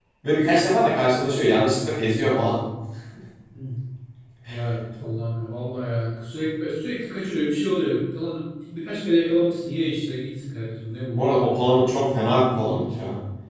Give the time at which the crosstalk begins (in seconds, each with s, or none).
none